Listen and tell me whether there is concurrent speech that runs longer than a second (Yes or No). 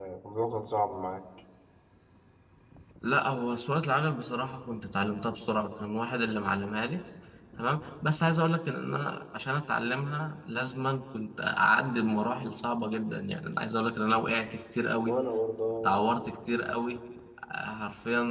No